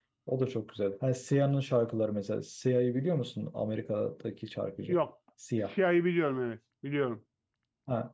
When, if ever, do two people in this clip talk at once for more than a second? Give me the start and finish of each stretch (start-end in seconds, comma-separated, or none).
none